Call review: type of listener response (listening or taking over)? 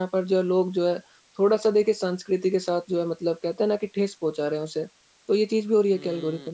taking over